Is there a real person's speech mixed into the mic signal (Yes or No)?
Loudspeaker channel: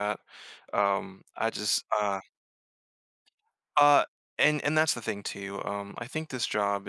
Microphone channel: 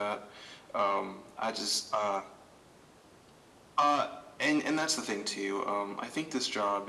No